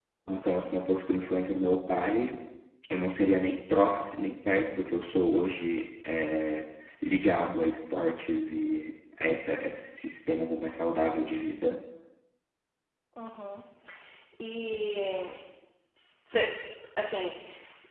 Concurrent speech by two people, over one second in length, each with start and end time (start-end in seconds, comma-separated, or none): none